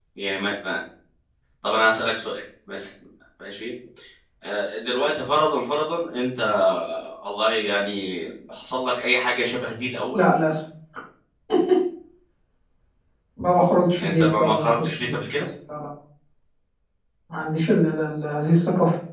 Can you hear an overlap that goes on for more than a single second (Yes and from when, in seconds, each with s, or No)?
Yes, from 14.0 s